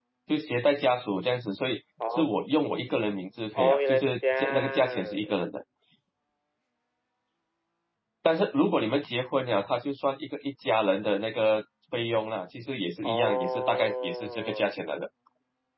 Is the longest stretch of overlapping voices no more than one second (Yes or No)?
No